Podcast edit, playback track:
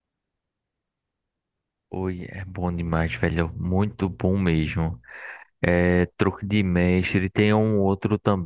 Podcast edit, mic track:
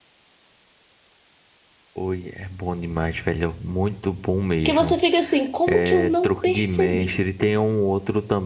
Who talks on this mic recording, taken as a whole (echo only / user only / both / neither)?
both